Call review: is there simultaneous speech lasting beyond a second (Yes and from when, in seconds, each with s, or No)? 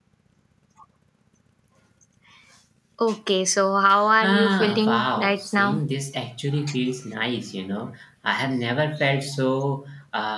Yes, from 4.2 s